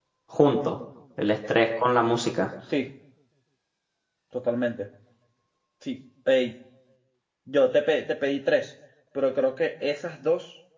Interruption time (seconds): none

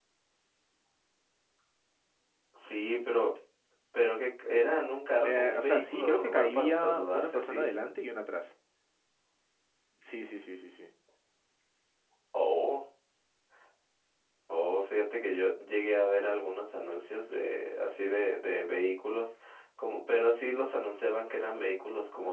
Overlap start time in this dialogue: 5.2 s

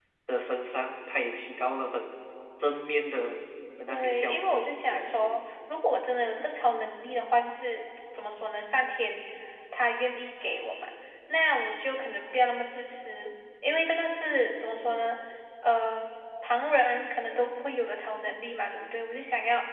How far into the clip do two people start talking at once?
3.9 s

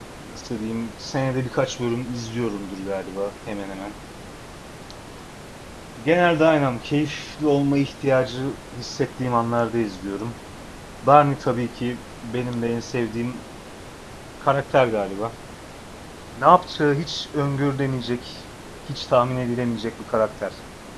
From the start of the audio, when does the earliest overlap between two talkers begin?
none

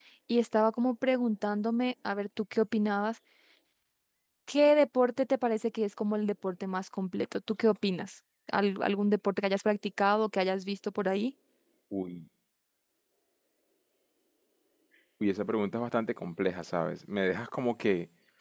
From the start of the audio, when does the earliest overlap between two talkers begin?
none

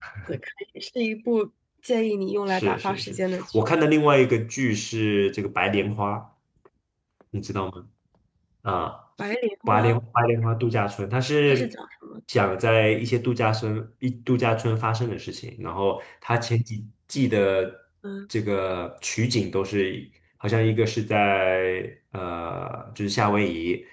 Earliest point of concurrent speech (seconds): 2.5 s

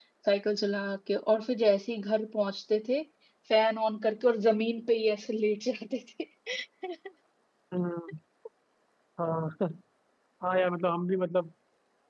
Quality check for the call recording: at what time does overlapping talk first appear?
none

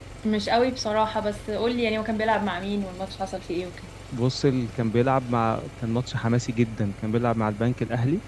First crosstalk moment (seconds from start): none

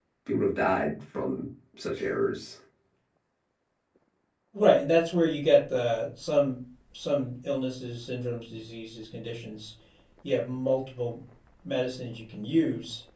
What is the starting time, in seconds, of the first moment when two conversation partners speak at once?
none

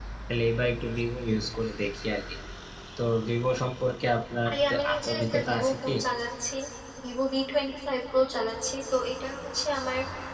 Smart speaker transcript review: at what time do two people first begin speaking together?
4.4 s

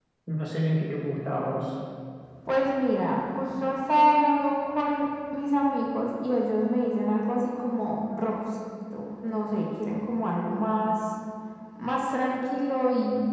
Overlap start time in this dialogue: none

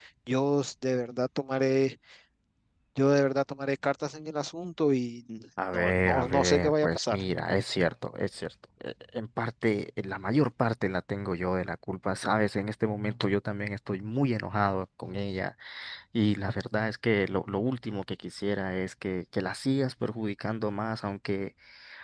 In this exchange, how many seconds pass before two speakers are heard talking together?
5.7 s

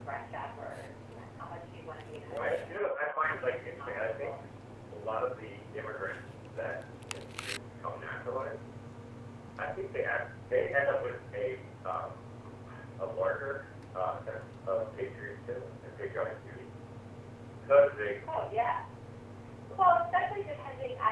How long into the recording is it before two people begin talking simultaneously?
2.3 s

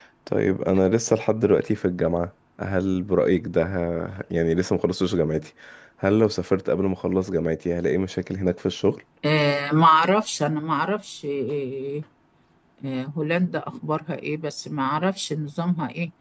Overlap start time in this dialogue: none

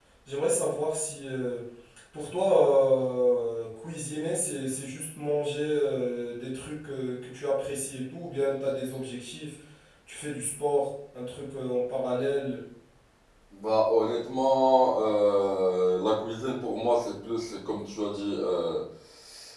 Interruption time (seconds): none

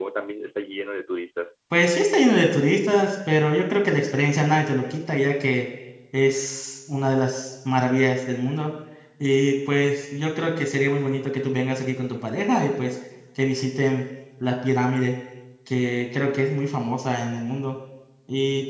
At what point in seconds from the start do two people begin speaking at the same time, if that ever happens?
none

